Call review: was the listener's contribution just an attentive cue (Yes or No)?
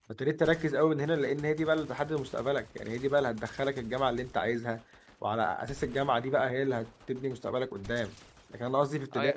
Yes